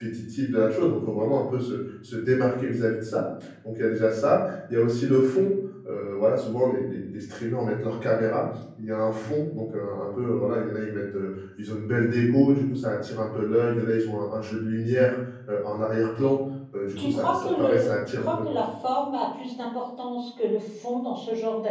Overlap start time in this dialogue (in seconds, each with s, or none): 17.0 s